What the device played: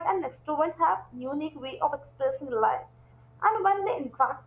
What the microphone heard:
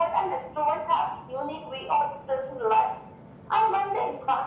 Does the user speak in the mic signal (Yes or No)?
No